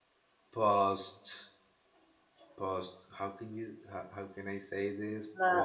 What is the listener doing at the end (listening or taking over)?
taking over